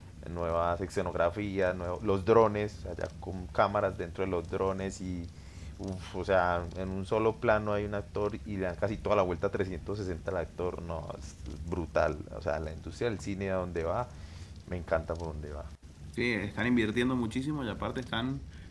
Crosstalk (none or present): none